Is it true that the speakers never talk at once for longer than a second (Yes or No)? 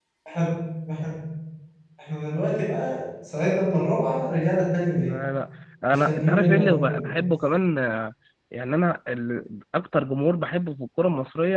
No